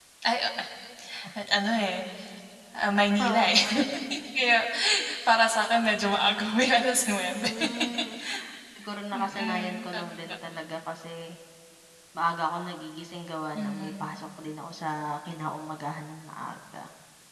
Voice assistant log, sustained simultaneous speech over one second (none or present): present